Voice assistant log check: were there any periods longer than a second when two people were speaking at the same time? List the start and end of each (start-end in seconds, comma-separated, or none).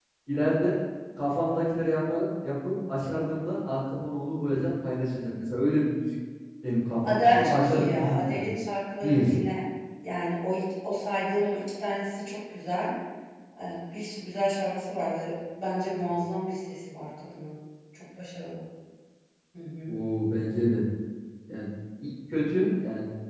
7.0-8.4